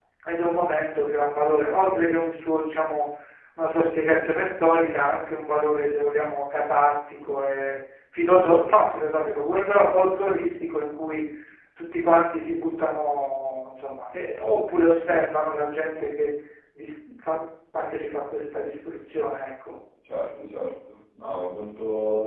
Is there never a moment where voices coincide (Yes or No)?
Yes